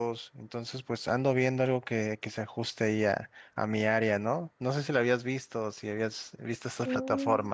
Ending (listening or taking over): taking over